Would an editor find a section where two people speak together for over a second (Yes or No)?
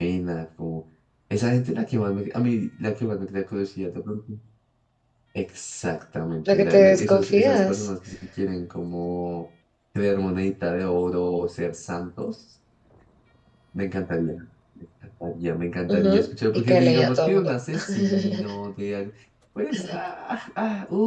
Yes